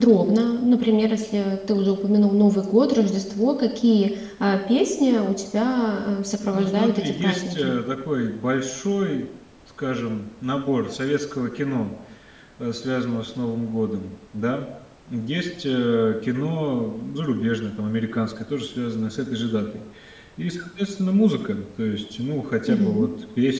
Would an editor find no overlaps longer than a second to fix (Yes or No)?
No